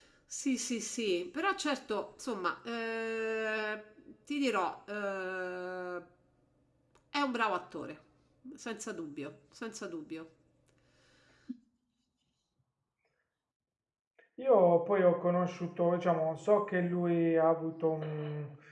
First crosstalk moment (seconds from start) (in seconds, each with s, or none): none